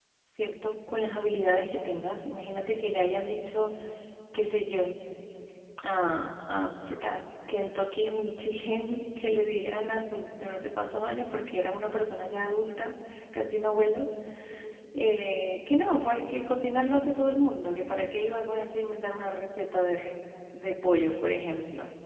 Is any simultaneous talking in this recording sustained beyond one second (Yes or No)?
No